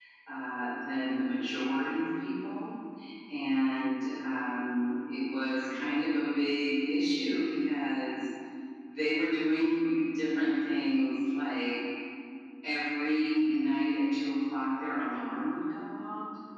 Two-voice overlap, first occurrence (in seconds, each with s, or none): none